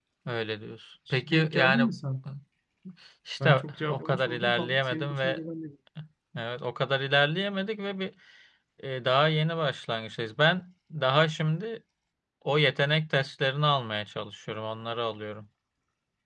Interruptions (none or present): present